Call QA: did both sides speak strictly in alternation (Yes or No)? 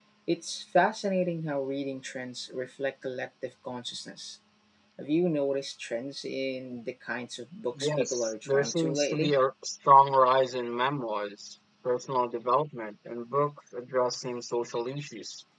No